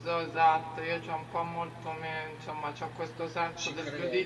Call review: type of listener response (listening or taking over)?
listening